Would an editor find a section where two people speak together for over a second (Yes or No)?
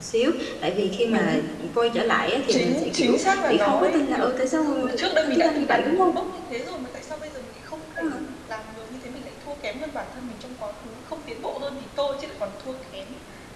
Yes